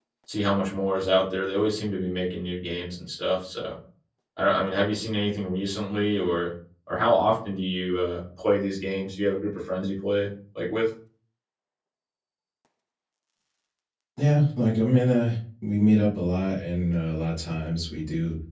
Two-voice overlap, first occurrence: none

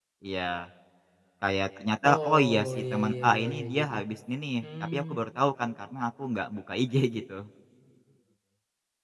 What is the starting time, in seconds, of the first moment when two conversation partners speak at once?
2.1 s

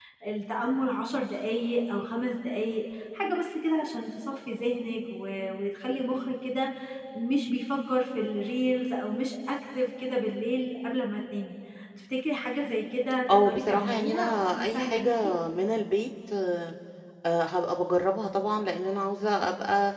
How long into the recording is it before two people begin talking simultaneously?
13.3 s

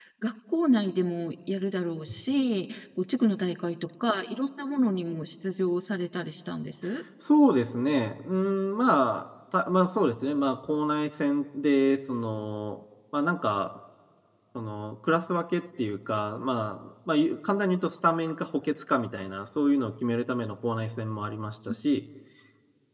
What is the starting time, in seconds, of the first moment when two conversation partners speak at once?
none

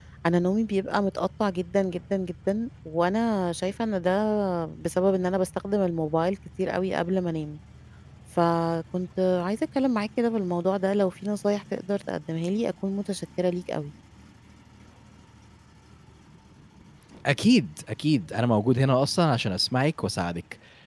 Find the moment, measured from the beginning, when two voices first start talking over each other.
none

